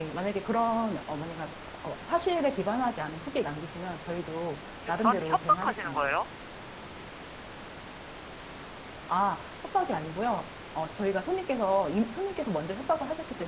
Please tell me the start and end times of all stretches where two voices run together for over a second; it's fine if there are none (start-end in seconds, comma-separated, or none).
4.9-6.2